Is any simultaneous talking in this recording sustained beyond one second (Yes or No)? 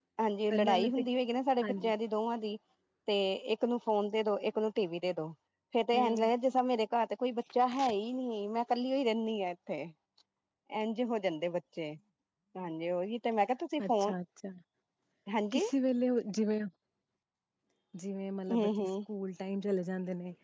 No